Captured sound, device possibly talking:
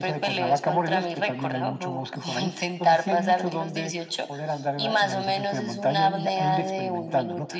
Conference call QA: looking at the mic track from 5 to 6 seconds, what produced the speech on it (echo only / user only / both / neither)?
echo only